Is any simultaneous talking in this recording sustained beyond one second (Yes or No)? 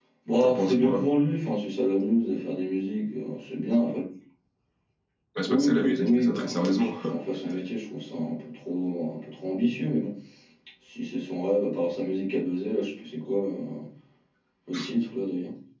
Yes